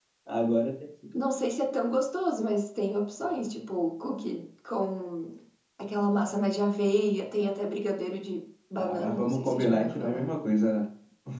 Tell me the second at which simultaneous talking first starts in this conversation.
9 s

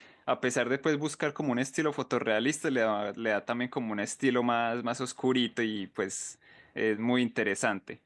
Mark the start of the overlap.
none

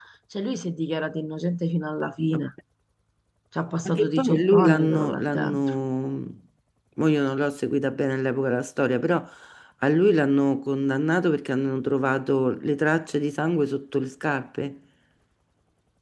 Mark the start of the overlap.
4 s

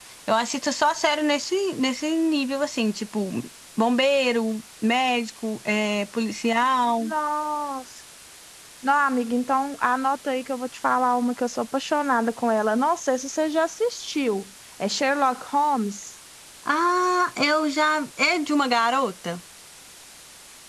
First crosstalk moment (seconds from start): none

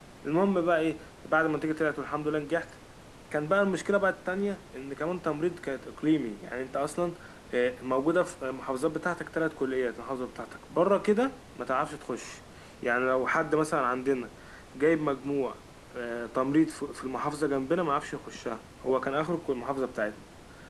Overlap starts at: none

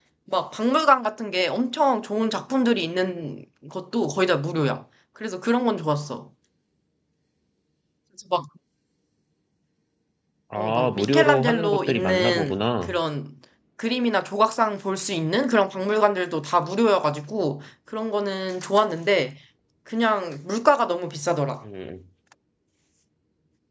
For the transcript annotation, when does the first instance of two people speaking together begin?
11 s

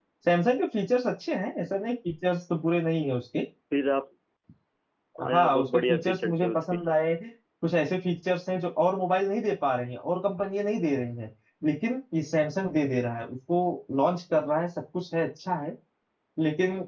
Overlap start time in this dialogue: 5 s

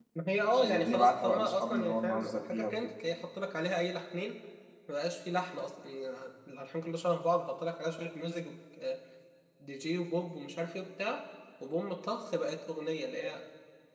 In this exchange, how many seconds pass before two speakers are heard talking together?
1 s

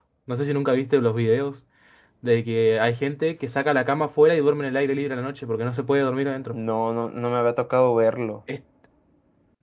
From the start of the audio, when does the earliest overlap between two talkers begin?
none

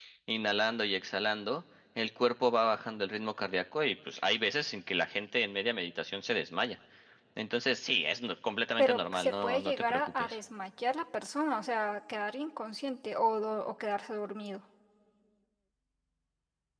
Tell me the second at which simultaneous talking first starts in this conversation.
9 s

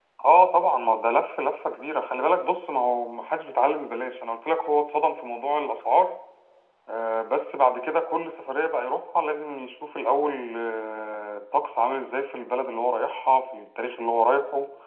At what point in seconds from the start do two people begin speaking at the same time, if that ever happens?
none

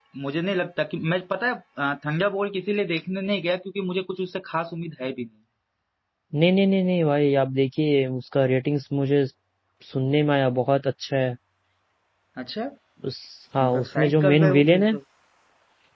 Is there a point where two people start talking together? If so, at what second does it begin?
14 s

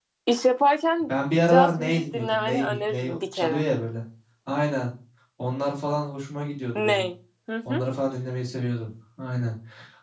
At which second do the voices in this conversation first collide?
1 s

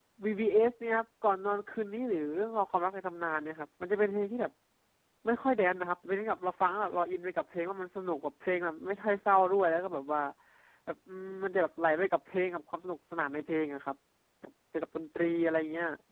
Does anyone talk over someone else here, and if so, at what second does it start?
none

